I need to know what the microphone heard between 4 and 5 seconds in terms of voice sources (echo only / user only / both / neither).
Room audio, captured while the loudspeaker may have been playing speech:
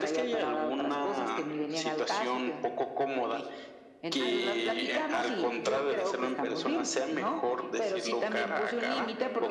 both